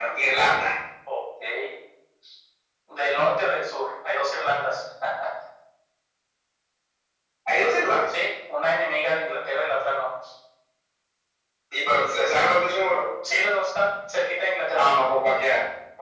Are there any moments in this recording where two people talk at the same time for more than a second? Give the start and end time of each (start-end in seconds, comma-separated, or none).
none